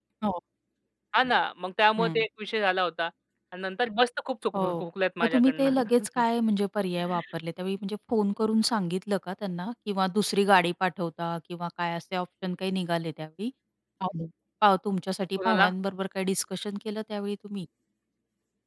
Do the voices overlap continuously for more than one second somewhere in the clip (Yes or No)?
No